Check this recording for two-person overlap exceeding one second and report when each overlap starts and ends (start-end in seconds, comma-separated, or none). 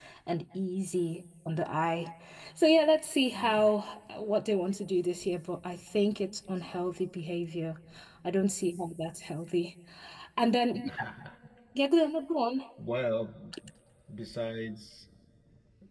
none